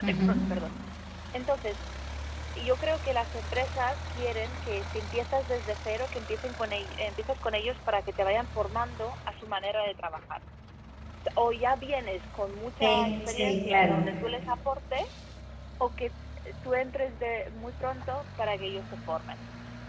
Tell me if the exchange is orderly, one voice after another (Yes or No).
No